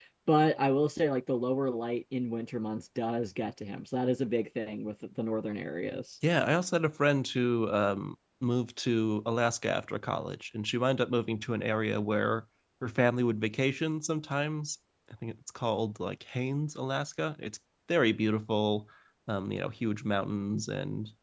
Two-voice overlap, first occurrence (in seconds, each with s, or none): none